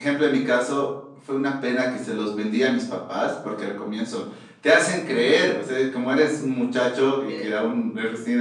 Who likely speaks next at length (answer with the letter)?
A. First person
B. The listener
A